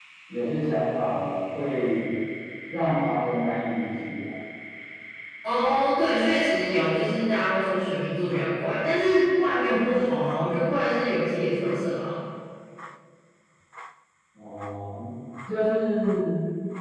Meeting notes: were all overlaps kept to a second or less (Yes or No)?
Yes